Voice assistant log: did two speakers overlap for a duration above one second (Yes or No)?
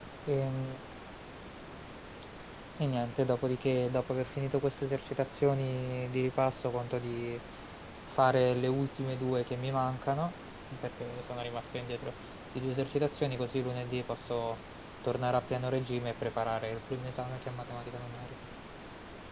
No